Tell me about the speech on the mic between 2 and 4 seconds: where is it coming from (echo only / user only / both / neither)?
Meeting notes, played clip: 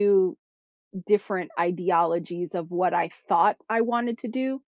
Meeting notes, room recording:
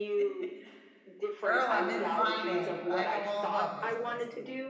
both